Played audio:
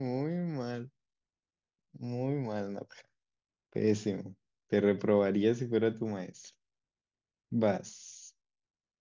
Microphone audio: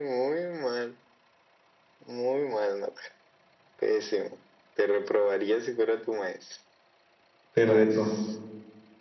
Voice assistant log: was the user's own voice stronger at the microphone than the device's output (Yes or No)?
Yes